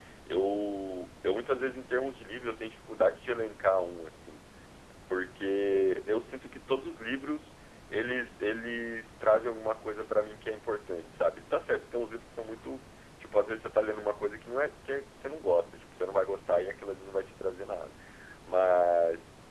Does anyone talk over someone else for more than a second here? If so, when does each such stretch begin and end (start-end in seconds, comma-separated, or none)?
none